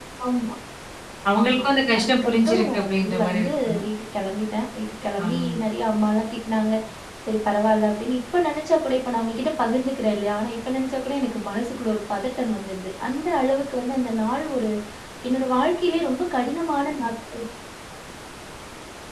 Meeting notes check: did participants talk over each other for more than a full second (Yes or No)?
Yes